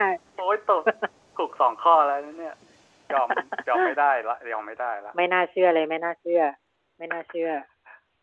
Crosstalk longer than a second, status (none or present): none